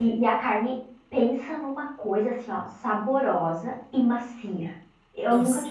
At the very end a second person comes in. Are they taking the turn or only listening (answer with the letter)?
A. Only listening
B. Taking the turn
A